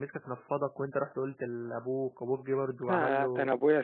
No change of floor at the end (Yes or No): No